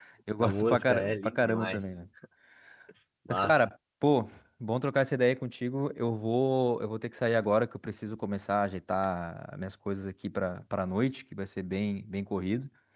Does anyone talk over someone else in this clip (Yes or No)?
Yes